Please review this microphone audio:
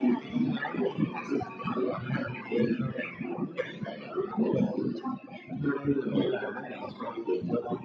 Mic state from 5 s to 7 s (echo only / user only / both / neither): echo only